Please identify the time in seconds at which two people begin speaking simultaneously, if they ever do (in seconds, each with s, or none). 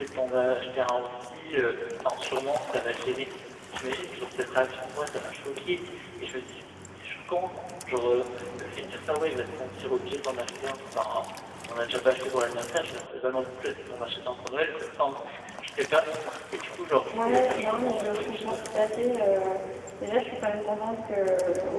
17.1 s